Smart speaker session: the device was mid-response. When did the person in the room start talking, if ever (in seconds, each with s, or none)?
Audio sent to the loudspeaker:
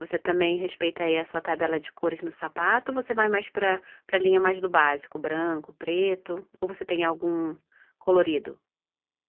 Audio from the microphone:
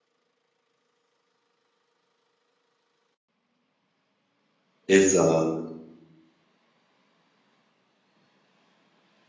4.9 s